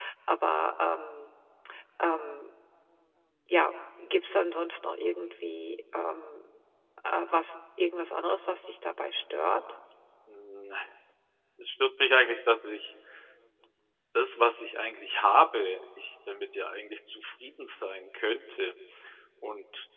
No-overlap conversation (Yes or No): Yes